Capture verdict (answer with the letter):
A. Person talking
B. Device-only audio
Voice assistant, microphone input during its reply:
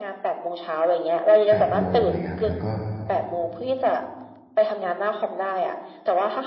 A